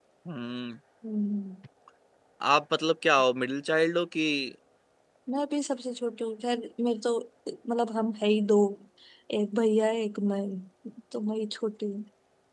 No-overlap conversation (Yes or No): Yes